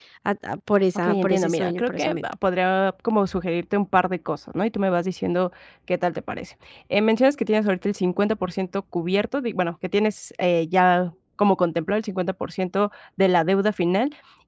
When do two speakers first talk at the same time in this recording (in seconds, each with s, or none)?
1.0 s